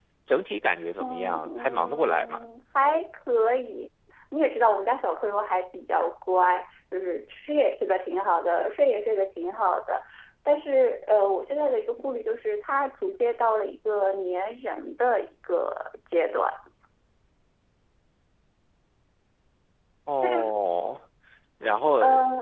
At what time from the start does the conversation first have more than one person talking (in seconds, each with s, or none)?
1.0 s